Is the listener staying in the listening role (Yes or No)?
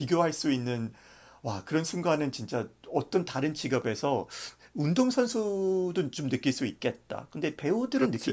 No